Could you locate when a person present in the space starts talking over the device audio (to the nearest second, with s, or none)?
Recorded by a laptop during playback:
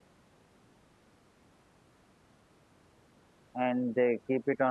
4 s